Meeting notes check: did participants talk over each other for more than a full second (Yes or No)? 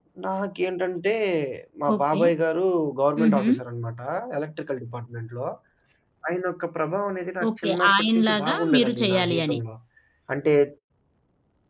Yes